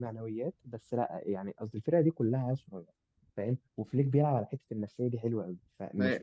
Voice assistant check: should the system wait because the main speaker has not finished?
Yes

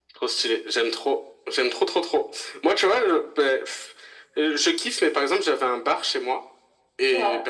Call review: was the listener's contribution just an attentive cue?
Yes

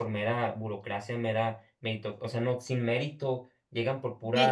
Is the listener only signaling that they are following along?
Yes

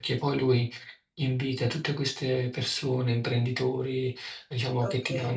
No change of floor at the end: Yes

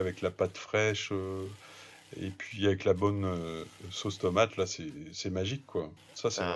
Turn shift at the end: Yes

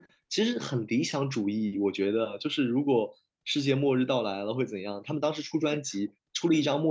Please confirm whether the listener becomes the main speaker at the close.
No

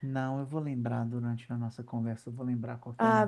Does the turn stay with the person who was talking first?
No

